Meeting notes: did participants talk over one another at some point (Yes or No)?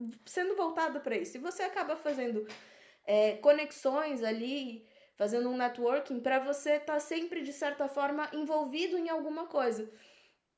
No